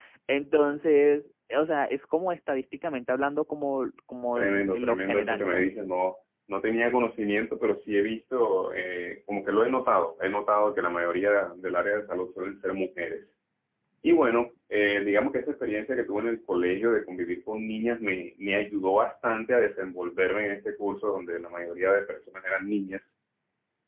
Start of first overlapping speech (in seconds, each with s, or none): 4.4 s